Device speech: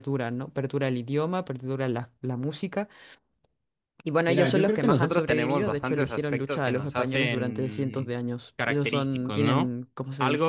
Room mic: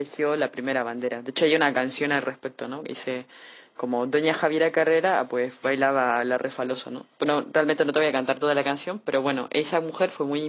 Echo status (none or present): none